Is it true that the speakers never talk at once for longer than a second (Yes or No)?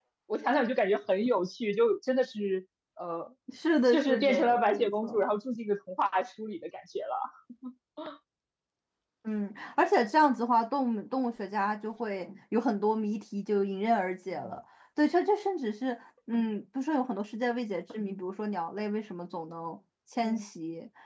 No